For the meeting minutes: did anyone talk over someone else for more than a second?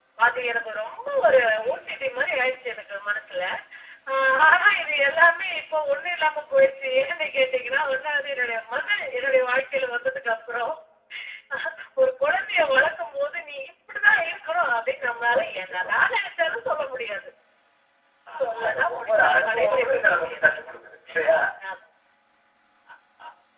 Yes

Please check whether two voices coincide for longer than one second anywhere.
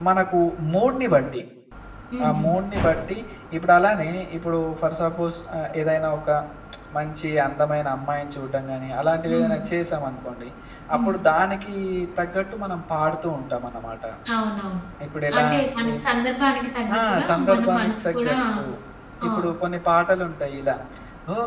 Yes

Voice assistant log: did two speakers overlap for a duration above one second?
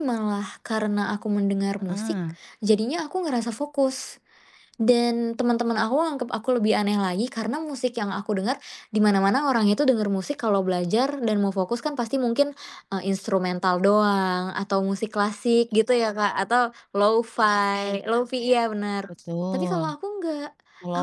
No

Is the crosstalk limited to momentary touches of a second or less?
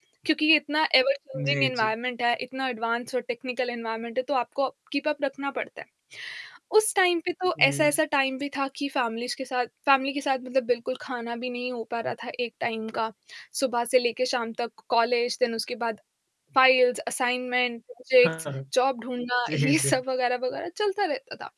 Yes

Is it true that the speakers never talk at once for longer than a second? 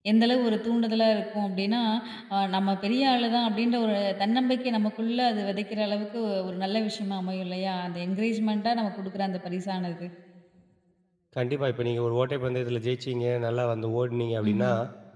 Yes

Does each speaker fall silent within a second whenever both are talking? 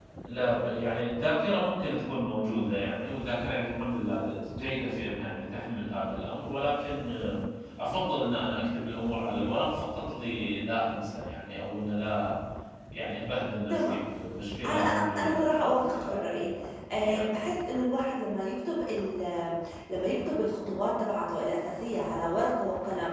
No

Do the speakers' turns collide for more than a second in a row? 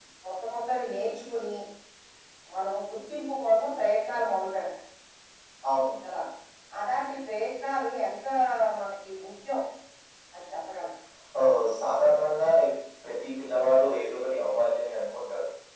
No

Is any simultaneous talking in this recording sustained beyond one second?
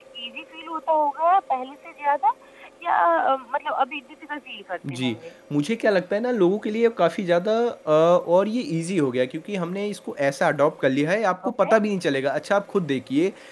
No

